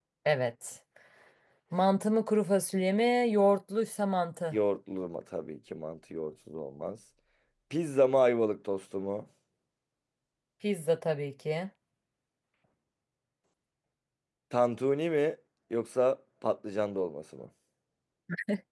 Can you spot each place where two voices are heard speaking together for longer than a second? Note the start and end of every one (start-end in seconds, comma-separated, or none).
none